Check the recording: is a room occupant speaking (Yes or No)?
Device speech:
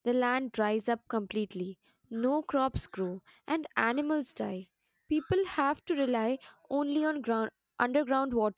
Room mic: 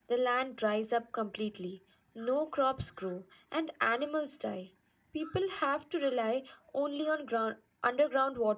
No